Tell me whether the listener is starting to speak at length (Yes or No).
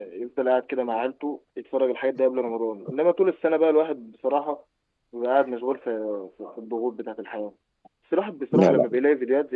No